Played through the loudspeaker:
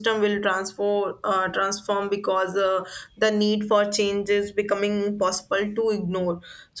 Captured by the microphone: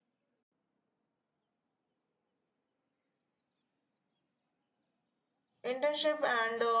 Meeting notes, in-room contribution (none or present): present